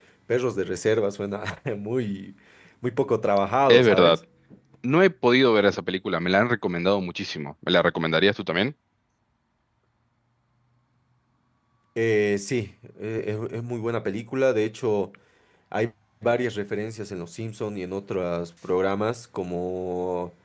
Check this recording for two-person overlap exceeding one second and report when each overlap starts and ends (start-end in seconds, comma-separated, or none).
none